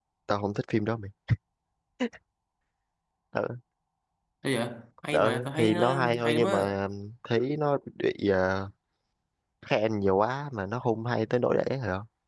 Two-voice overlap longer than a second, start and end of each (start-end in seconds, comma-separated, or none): 5.1-6.6